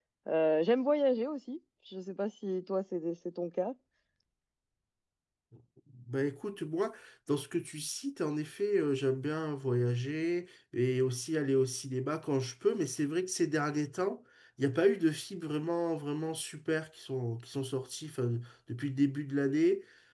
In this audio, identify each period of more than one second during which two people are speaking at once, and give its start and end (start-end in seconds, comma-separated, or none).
none